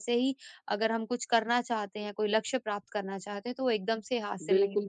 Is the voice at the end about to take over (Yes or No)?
Yes